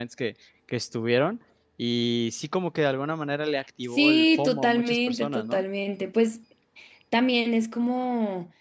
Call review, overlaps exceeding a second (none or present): present